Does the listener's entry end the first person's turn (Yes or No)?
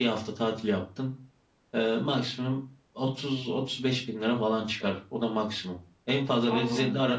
No